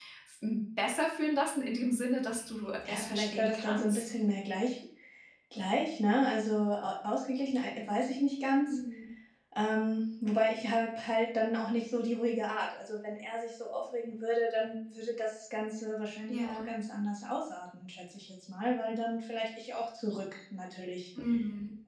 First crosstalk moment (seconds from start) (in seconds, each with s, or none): 2.9 s